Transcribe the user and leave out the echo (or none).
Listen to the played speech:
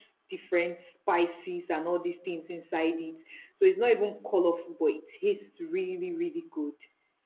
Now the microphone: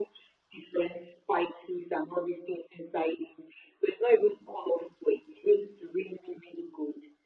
none